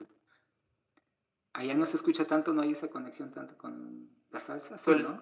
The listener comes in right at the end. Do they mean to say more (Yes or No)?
Yes